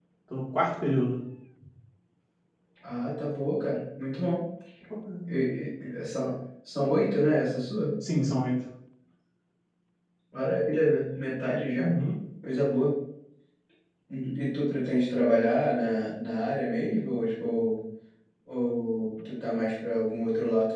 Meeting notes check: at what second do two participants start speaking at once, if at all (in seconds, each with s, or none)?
none